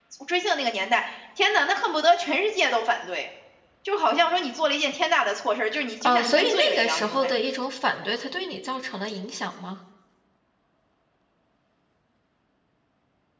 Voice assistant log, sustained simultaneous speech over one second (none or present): present